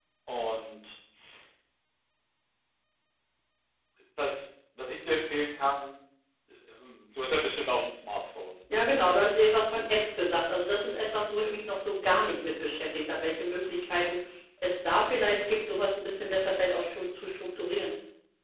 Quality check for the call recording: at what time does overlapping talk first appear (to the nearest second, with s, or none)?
none